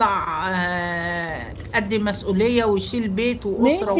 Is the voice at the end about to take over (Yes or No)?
Yes